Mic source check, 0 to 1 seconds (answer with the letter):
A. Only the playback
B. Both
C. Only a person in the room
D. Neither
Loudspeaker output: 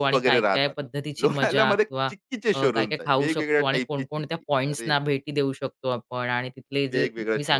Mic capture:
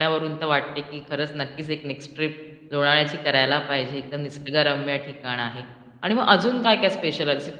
C